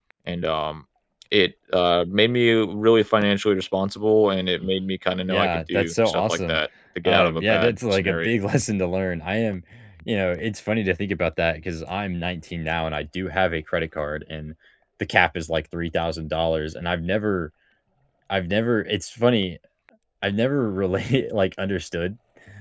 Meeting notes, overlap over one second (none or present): present